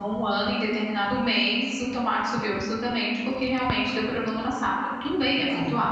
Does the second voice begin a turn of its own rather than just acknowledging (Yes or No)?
No